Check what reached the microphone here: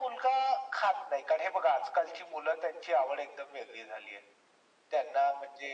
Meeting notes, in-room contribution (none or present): none